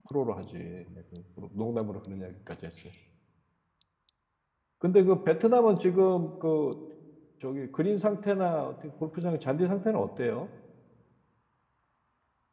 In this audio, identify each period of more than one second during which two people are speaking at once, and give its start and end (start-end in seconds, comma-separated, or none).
none